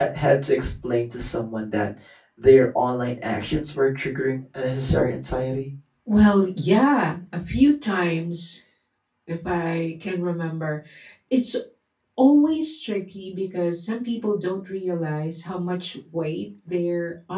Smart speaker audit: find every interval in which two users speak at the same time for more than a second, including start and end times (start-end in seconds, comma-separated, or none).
none